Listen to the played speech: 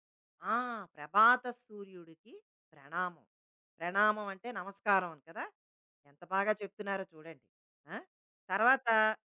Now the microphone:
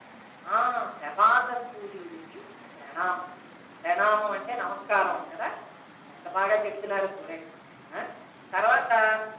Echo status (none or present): present